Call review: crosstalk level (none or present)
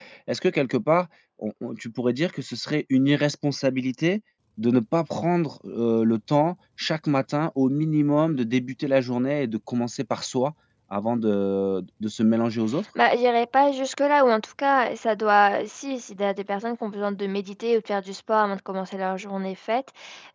none